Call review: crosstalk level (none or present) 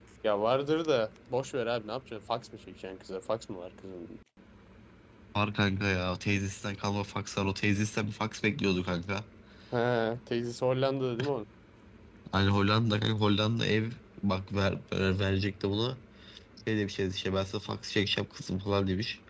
none